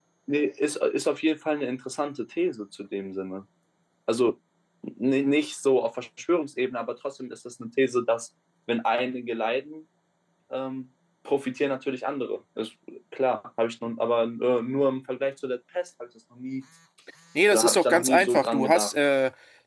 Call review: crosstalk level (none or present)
present